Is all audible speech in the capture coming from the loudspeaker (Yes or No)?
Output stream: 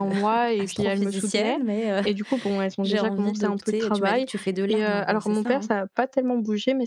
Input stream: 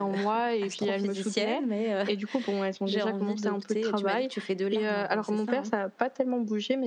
Yes